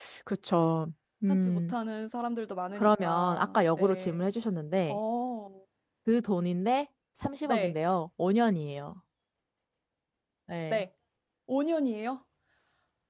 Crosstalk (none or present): present